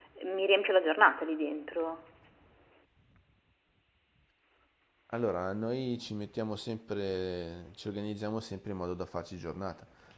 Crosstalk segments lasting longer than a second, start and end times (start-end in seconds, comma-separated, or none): none